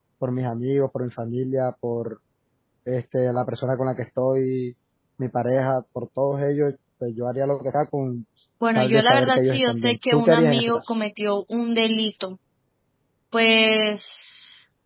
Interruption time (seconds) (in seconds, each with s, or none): 8.8 s